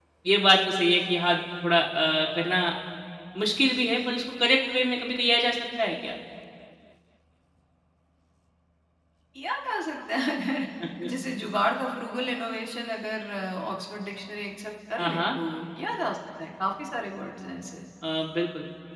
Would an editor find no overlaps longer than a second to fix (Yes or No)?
Yes